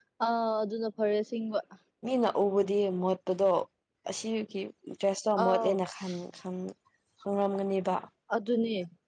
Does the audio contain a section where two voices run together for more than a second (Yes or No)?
No